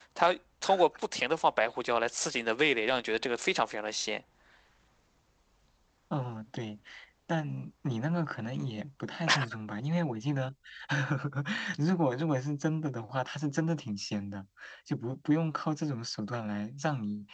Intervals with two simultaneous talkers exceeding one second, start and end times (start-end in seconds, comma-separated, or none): none